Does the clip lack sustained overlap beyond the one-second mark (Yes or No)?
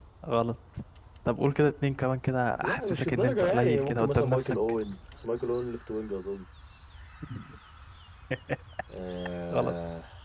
No